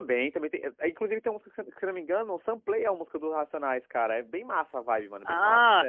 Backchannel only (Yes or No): No